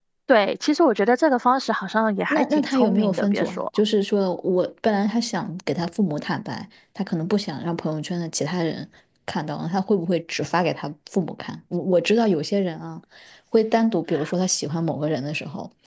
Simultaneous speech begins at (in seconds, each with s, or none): 2.3 s